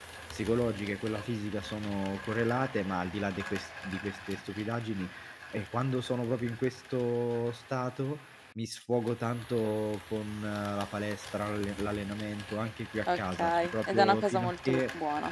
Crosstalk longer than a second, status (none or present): present